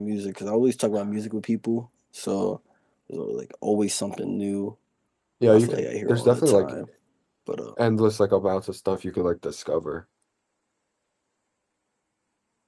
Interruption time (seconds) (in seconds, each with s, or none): 5.5 s